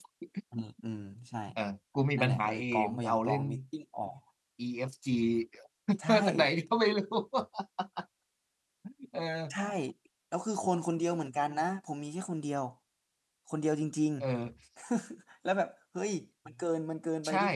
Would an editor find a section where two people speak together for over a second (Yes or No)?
Yes